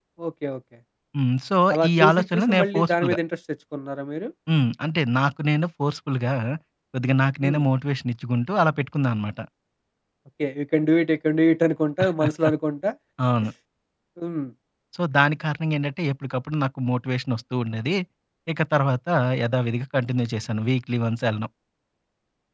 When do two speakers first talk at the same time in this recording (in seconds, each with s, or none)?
1.7 s